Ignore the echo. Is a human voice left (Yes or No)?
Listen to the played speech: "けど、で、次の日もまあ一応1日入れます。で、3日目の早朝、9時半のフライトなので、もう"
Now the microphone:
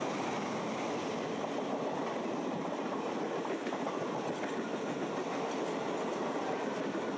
No